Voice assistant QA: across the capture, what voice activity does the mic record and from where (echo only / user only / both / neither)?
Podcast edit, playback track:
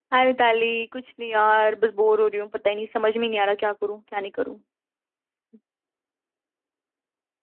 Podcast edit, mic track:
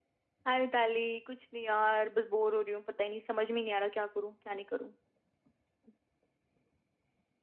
echo only